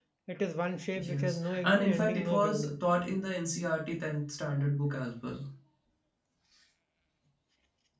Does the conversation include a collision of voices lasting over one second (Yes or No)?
Yes